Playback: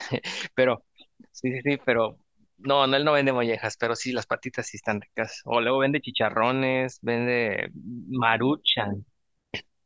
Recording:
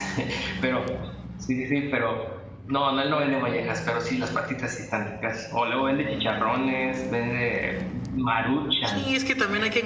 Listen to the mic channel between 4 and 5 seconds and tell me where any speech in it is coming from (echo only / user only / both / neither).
echo only